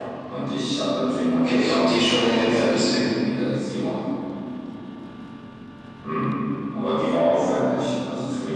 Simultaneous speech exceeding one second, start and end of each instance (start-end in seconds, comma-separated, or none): 1.3-3.1